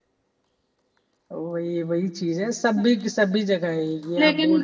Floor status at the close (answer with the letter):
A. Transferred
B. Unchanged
A